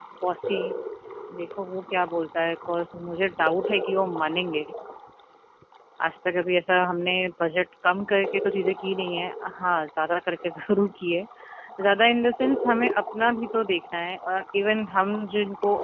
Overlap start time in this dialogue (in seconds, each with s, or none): none